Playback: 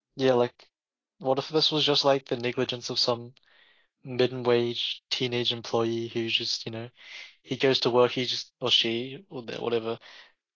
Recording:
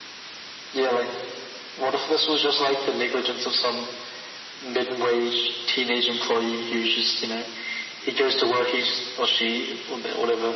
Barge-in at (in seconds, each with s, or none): none